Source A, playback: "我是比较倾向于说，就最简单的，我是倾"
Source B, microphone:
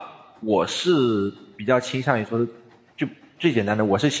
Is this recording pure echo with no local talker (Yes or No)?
Yes